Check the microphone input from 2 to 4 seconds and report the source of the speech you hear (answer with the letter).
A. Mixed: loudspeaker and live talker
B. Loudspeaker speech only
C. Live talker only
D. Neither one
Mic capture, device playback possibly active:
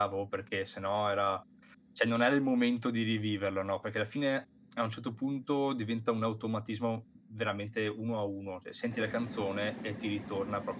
C